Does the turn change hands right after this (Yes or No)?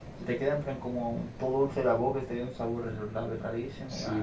Yes